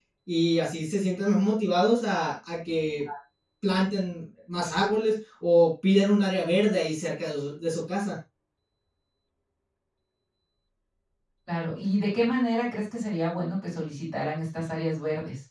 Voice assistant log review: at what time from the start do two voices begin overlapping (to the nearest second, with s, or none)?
none